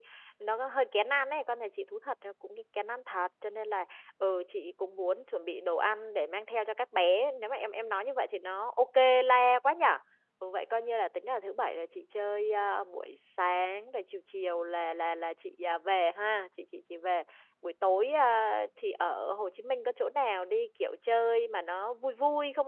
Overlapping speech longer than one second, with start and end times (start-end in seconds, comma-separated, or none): none